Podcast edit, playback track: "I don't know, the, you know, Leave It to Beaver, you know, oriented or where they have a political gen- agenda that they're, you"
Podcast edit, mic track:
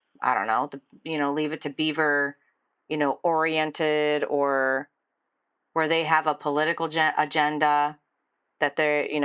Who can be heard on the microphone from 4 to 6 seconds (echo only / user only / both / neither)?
echo only